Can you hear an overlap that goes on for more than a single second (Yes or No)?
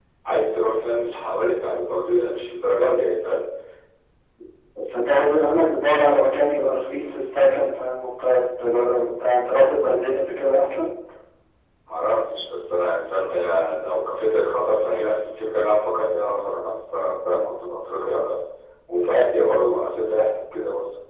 No